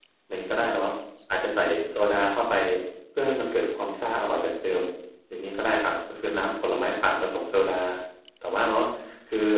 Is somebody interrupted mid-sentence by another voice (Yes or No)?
No